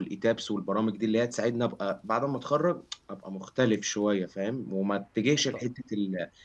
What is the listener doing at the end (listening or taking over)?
listening